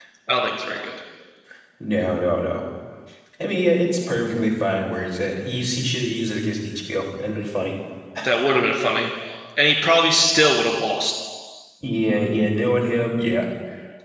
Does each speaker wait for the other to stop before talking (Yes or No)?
Yes